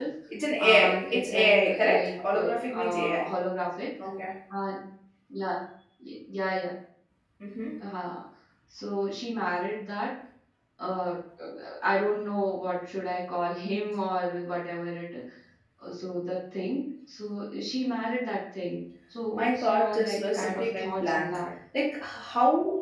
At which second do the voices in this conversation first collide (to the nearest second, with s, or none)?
1 s